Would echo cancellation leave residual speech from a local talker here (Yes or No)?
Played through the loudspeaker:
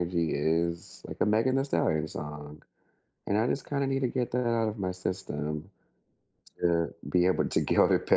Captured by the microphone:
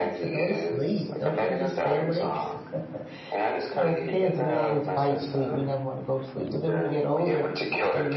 Yes